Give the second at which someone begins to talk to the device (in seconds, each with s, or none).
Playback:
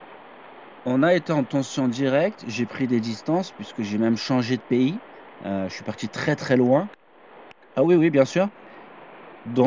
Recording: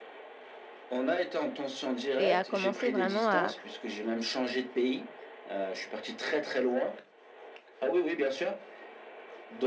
2.2 s